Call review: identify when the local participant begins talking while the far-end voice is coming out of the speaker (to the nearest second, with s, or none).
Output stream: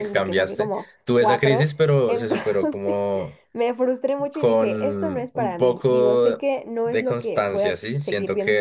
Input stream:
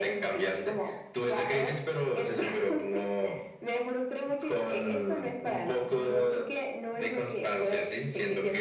none